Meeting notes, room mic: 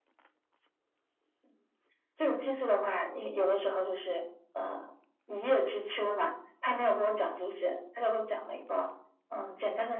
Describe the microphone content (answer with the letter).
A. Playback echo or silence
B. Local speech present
A